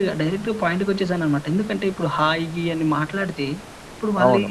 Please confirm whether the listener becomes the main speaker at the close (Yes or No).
No